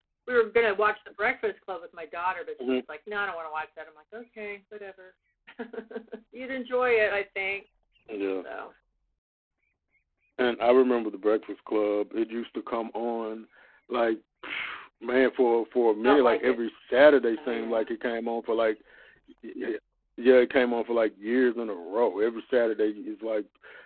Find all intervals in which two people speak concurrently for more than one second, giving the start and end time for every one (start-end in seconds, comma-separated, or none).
none